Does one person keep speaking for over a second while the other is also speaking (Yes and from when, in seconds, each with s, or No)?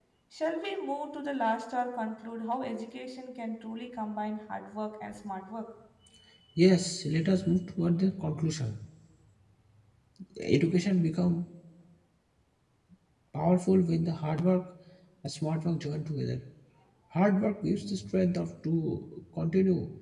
No